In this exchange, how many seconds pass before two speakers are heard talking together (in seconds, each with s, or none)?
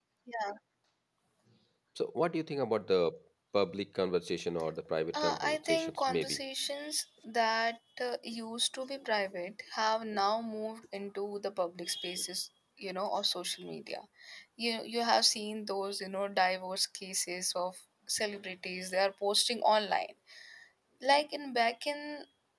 5.1 s